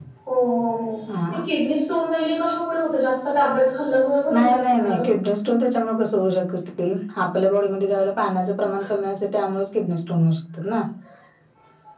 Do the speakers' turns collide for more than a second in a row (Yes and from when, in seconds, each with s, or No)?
No